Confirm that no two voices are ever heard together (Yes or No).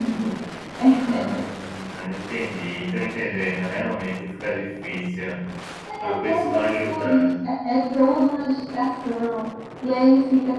No